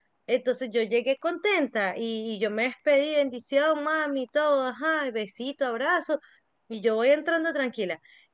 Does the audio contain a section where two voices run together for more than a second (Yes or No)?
No